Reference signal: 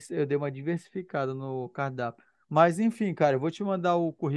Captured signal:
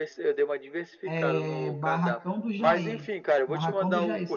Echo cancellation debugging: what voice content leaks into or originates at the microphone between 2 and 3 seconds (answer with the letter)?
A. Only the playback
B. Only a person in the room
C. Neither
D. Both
D